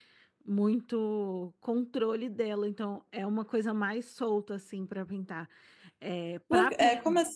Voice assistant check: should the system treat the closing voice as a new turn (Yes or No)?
Yes